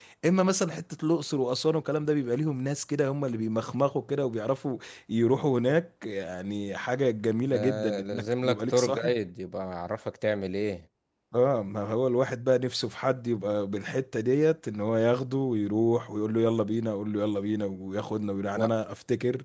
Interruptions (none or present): present